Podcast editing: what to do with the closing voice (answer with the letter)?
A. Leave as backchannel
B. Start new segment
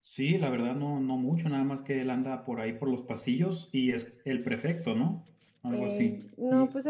B